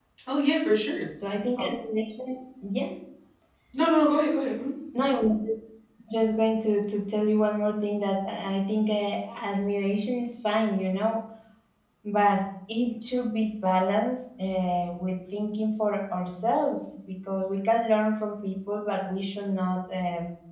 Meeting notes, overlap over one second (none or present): none